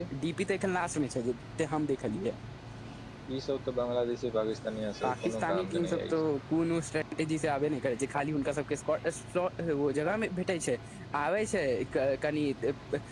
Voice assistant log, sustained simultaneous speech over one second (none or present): present